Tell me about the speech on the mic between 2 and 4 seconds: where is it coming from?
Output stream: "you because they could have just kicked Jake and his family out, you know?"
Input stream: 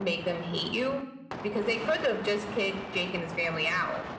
echo only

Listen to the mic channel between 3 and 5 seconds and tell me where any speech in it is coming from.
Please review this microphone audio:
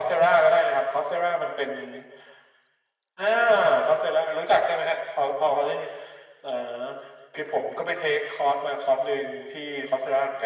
echo only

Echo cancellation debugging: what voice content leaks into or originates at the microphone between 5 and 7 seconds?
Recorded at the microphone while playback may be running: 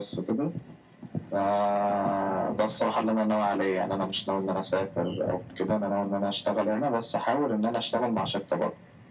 echo only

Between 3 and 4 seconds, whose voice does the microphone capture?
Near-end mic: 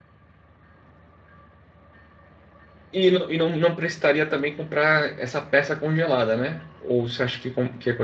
user only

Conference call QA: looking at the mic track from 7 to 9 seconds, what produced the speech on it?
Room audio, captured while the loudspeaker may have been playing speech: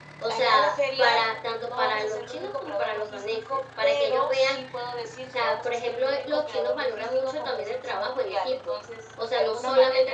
echo only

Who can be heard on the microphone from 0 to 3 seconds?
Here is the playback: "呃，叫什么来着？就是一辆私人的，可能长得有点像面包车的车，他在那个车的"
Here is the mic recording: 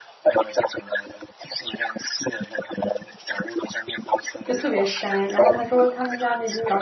echo only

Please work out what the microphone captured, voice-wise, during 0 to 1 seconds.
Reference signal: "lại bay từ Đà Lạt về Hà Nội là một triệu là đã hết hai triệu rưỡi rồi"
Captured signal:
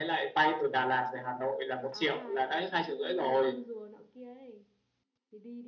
echo only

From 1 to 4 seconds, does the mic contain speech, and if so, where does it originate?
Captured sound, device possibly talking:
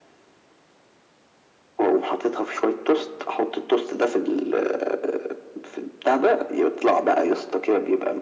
echo only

